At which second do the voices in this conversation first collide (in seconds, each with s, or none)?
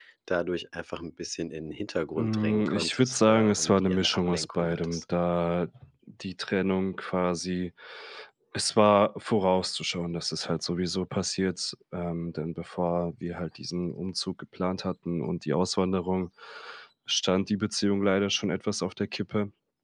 2.1 s